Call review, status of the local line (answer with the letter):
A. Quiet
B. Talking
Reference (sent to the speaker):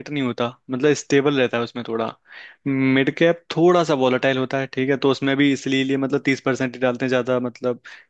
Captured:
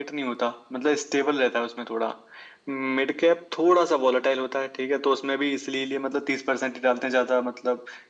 A